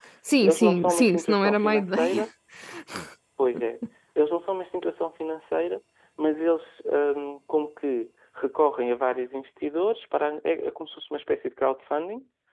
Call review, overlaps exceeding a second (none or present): present